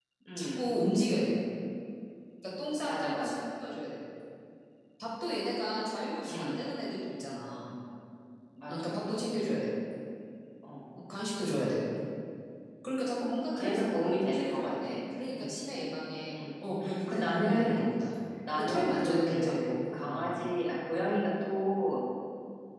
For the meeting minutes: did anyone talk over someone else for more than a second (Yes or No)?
Yes